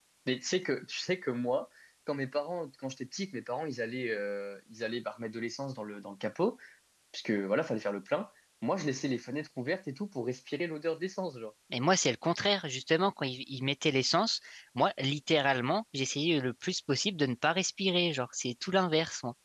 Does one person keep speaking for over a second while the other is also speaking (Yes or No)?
No